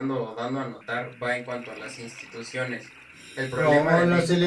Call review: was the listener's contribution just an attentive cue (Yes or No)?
No